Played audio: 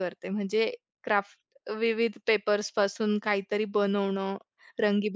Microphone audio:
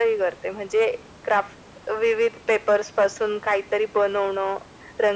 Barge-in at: none

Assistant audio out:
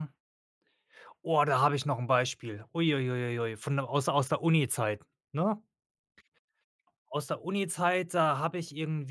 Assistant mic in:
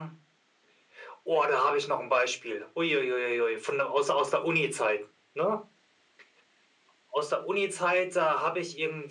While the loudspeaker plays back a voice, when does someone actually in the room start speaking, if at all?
none

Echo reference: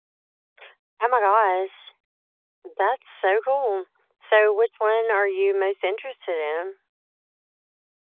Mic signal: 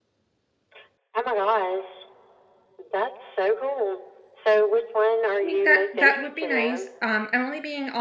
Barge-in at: 5 s

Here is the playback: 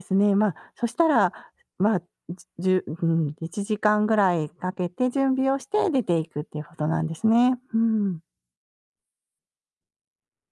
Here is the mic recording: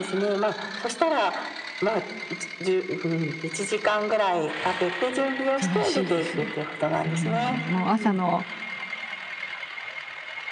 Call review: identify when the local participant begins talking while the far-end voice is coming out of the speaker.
6 s

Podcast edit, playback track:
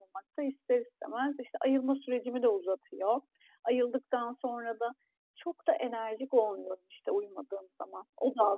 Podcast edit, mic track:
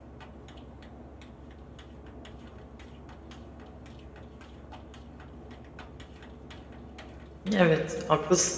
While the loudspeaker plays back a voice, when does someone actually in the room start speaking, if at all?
8 s

